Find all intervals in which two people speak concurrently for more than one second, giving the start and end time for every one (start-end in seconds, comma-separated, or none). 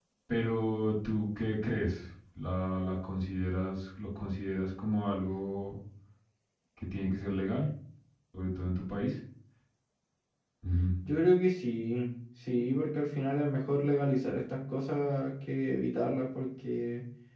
none